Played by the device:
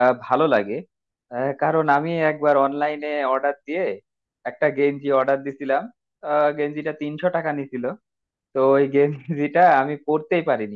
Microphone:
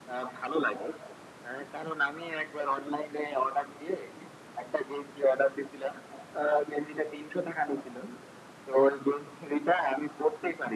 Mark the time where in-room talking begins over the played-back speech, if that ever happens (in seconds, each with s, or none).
none